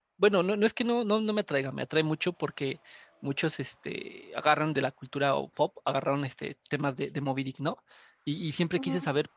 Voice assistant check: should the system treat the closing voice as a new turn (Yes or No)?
No